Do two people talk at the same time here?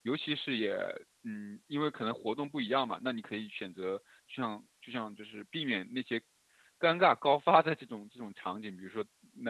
No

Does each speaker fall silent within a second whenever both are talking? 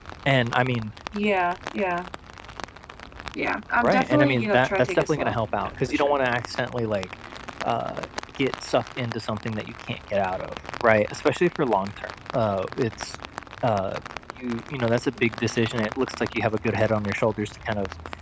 No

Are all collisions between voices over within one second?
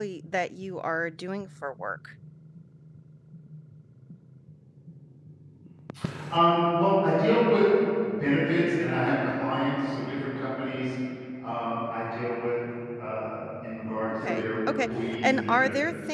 No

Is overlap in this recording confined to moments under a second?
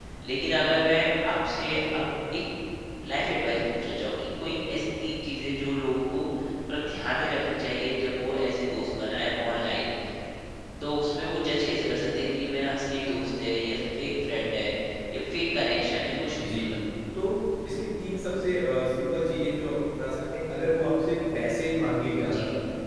Yes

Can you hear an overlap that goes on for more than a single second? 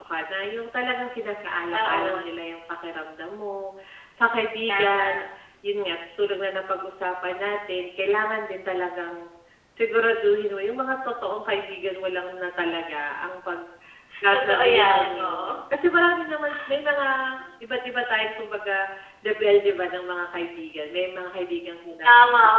Yes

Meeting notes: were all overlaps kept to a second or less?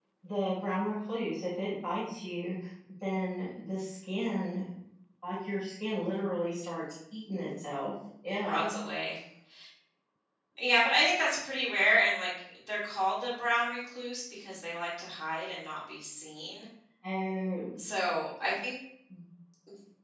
Yes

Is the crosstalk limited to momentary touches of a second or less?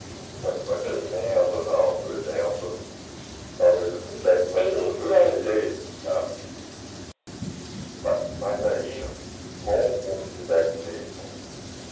No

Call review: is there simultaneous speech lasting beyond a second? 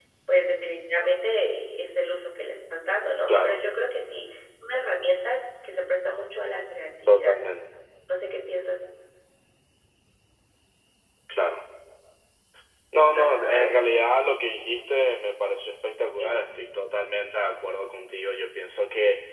No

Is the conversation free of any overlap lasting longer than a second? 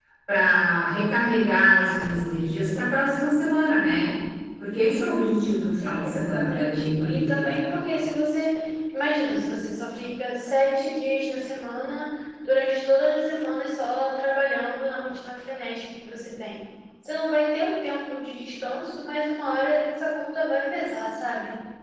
No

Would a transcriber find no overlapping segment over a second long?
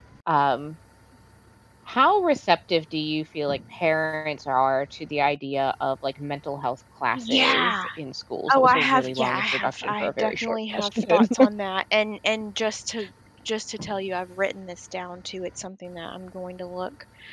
No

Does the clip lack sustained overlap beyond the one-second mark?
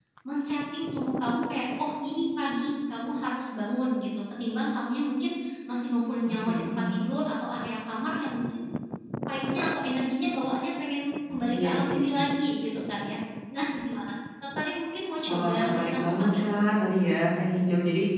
No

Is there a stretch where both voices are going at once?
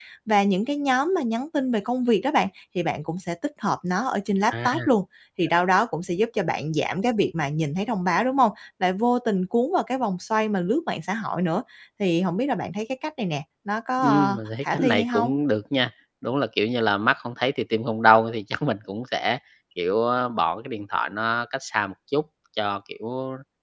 Yes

